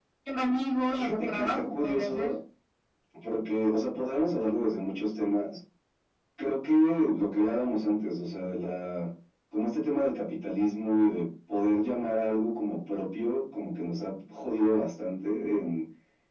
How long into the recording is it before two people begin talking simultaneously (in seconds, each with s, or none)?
0.9 s